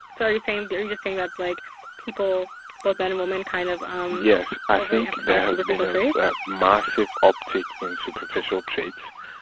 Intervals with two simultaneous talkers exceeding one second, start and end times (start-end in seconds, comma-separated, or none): 4.8-6.4